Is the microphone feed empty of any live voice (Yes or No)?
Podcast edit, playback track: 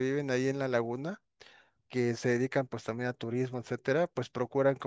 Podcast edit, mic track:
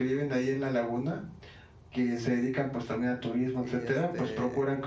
No